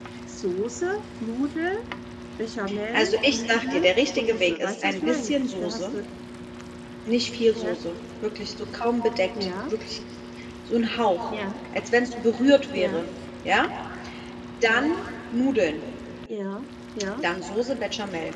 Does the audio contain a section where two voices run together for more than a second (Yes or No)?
Yes